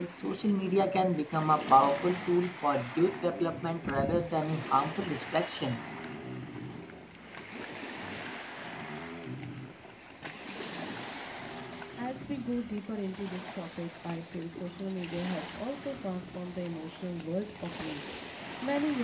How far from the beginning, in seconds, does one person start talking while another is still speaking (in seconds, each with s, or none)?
none